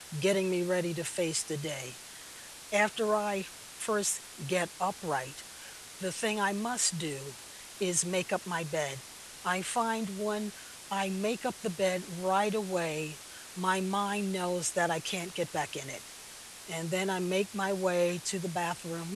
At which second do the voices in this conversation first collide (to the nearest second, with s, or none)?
none